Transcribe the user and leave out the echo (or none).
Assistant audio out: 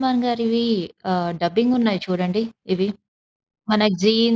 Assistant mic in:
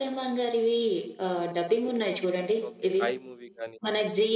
ఓకే. 'ఐ' మూవీ గాని